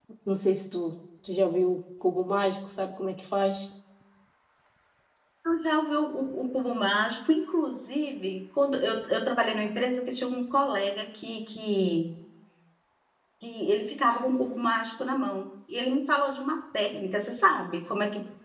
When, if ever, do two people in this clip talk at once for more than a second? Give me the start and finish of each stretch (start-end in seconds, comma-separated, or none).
none